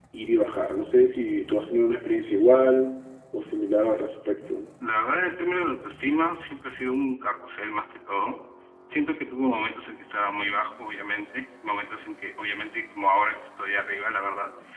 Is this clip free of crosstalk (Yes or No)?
Yes